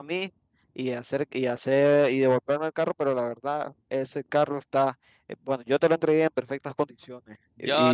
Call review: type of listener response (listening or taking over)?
taking over